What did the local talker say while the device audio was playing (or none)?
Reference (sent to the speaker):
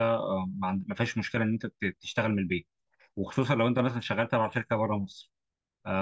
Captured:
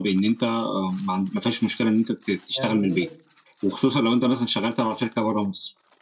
يعني هي